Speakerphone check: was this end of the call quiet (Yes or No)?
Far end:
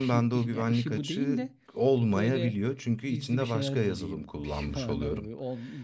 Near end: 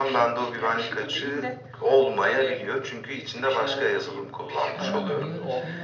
No